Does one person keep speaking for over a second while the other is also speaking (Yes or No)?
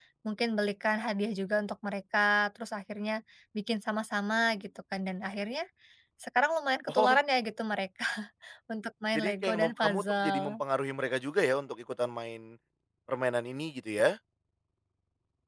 Yes